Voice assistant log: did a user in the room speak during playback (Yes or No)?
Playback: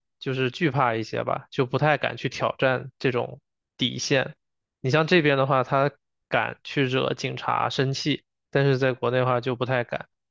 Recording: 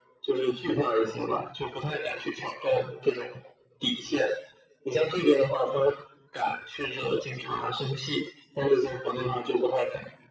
No